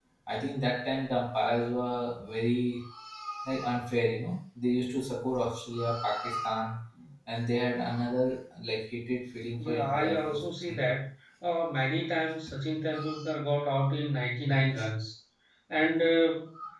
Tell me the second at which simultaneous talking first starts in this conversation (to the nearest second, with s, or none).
10 s